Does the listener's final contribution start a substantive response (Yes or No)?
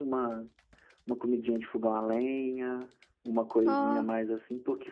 No